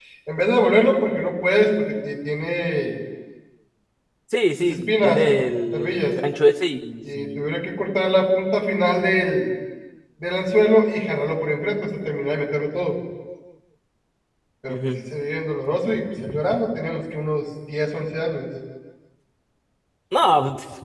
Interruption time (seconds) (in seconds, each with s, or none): 4.6 s